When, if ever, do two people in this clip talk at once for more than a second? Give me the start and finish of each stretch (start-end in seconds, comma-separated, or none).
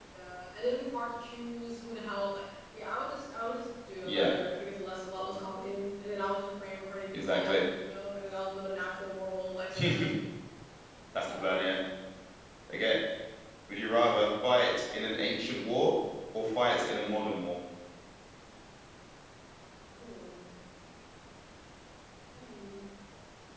none